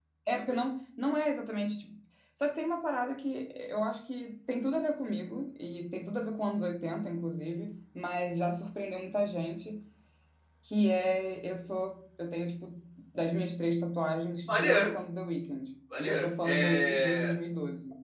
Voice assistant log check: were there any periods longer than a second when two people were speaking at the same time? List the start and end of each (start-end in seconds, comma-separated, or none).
16.0-17.3